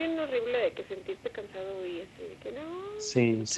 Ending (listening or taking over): taking over